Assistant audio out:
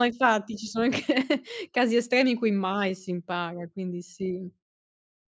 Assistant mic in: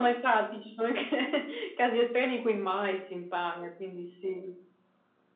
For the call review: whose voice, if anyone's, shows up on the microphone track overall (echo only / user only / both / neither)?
echo only